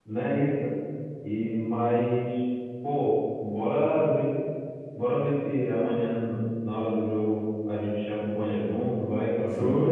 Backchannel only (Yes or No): No